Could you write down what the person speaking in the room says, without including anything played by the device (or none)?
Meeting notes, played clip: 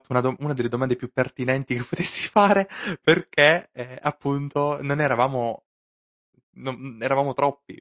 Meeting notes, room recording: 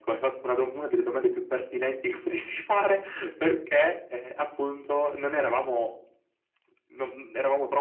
none